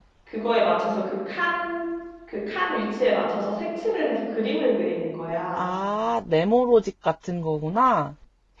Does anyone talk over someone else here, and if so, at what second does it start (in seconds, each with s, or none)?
none